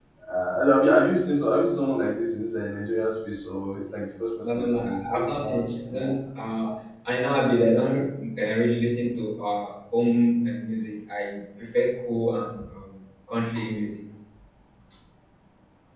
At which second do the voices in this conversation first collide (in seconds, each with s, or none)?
4.4 s